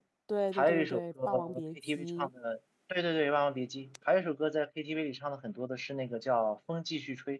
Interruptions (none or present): present